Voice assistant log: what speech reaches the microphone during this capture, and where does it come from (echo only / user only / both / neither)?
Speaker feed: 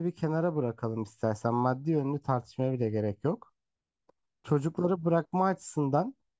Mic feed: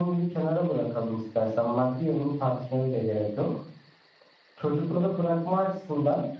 echo only